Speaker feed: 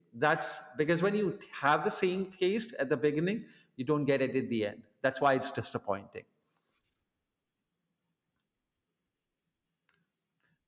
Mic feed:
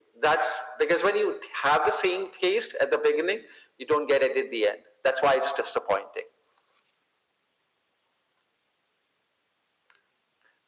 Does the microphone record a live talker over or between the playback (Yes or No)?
No